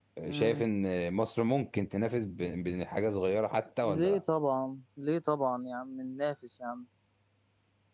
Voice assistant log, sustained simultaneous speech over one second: none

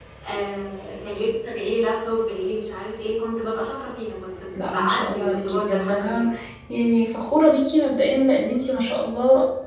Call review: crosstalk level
present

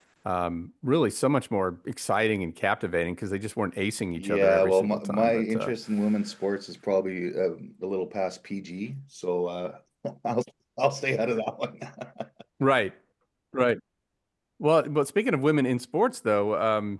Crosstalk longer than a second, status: present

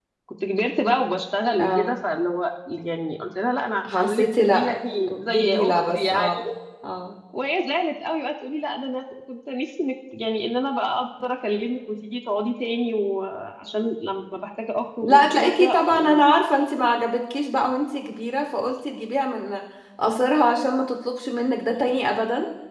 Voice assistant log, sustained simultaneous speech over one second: present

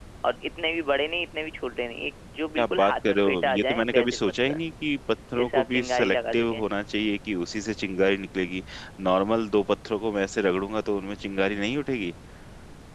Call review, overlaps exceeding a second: present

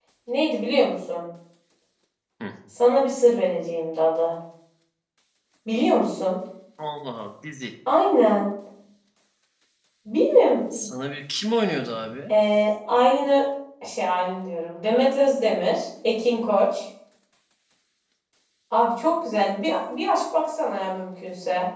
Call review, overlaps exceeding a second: none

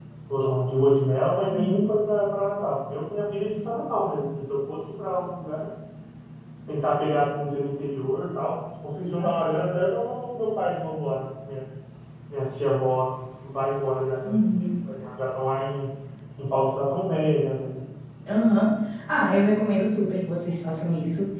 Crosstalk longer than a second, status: none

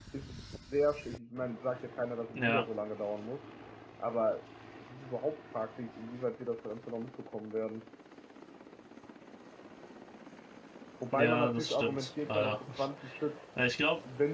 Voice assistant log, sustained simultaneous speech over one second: present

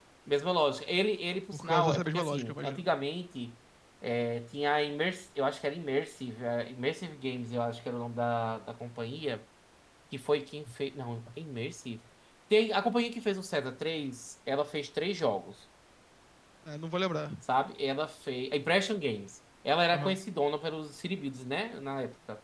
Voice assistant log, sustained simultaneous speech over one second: present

